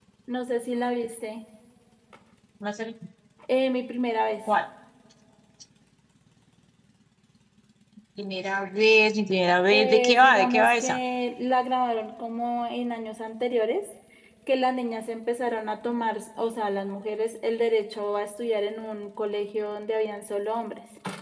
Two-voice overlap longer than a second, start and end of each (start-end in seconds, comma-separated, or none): 9.7-11.0